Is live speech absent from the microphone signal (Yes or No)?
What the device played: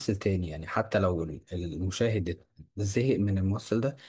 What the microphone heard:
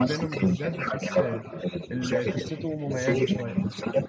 No